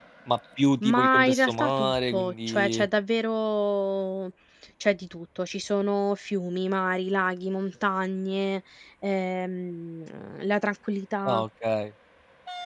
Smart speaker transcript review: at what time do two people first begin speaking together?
0.8 s

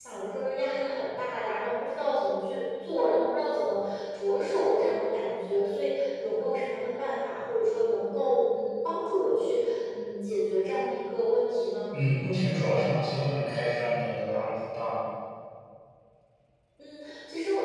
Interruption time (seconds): none

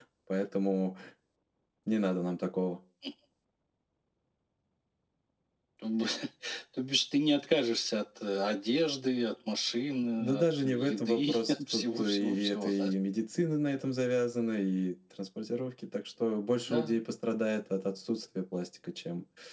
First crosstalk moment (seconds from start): 10.2 s

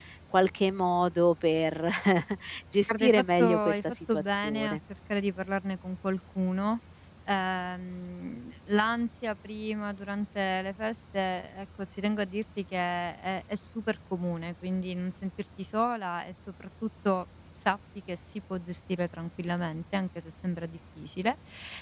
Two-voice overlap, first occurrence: 2.9 s

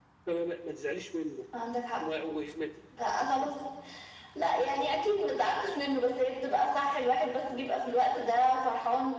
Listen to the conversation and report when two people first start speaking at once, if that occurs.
none

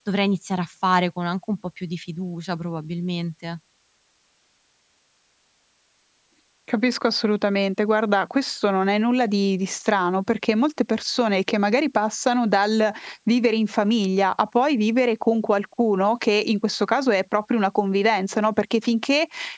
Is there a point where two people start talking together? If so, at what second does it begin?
none

